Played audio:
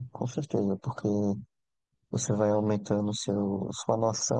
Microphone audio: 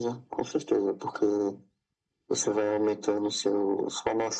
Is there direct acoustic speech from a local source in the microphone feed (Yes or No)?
No